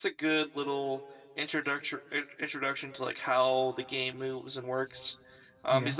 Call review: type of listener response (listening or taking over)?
listening